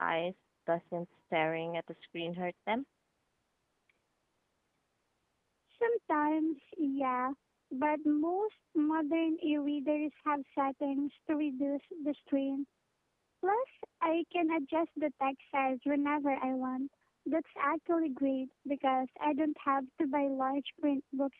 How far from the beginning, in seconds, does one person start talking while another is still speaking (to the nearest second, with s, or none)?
none